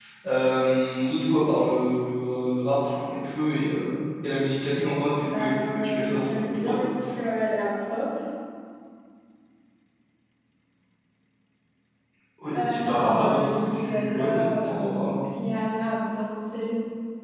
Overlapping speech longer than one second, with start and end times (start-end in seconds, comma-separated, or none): 5.2-7.0, 12.5-15.2